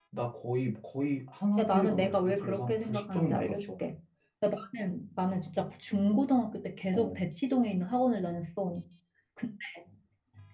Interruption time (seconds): 1.6 s

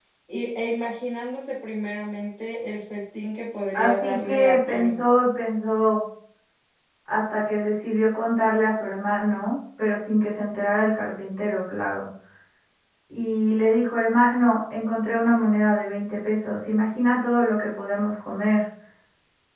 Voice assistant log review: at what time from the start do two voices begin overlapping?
3.7 s

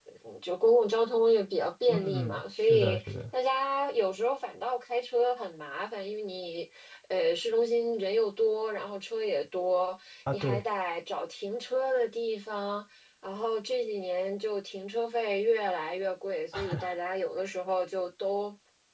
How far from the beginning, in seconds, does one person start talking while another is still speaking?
1.9 s

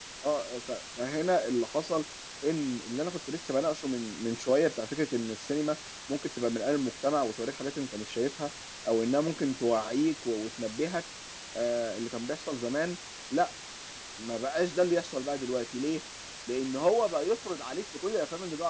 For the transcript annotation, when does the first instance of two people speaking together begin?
none

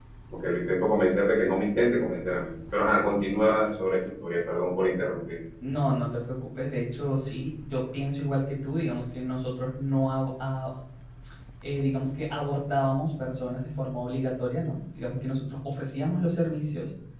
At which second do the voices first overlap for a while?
none

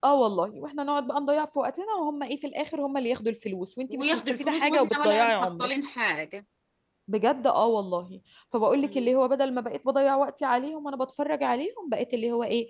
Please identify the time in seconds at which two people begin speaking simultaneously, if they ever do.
3.9 s

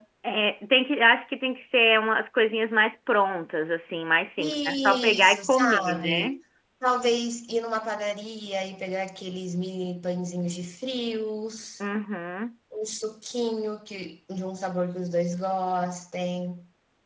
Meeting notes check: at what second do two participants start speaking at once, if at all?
4.4 s

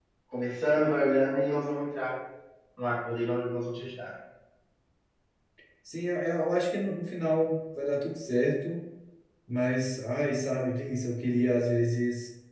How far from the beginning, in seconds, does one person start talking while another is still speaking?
none

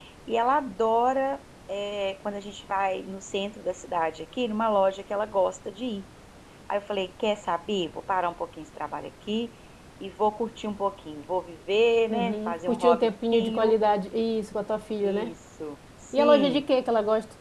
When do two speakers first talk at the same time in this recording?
12.1 s

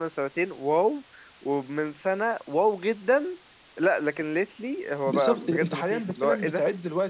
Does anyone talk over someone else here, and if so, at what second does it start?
5.1 s

